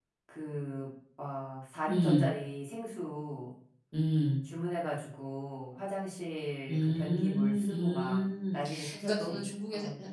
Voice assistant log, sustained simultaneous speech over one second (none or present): present